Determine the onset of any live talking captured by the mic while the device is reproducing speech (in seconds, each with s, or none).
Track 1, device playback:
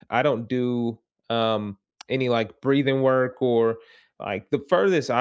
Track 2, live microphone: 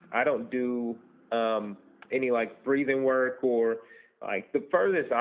none